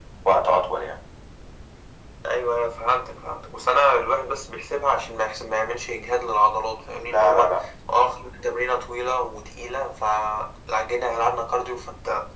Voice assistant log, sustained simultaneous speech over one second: none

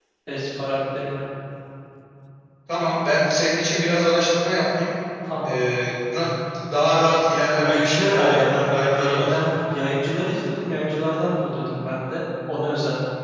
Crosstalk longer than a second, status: present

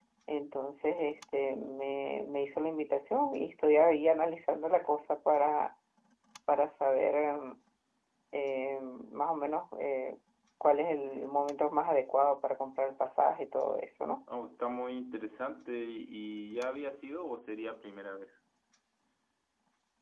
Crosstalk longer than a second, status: none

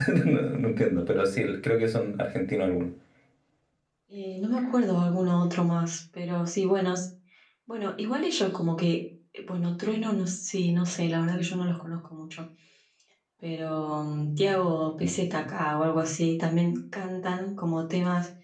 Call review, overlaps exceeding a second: none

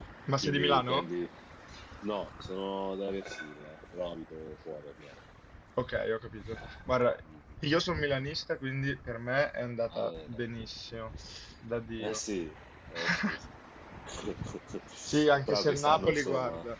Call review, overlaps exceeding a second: present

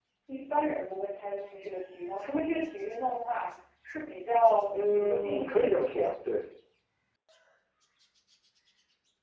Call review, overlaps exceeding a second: present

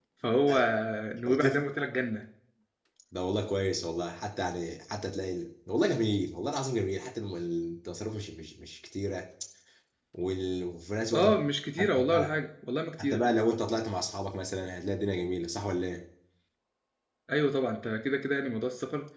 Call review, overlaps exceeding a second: none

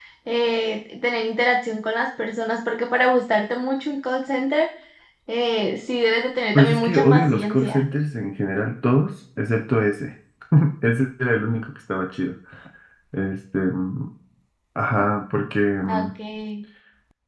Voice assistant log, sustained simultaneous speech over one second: present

